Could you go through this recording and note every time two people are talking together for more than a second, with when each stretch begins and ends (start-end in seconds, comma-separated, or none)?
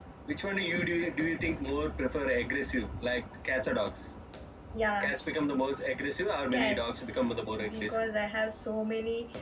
6.5-8.1